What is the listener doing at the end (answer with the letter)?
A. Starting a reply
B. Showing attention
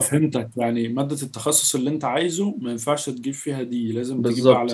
A